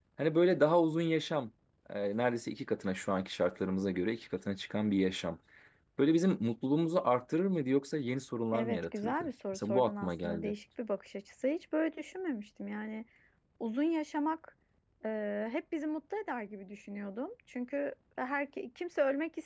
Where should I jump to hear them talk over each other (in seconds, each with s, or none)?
8.5 s